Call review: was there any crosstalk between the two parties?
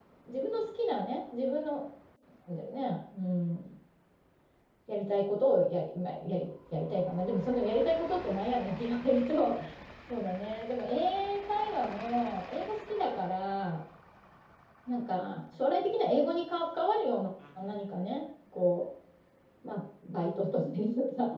No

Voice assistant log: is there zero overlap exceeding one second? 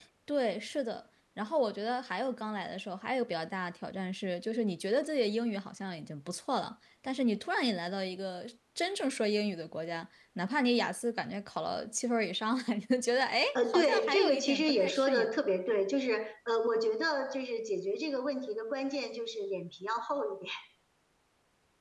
No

